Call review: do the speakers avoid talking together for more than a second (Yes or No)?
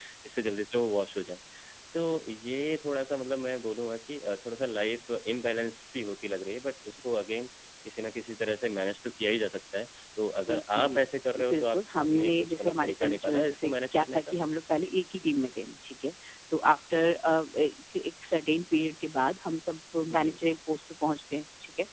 No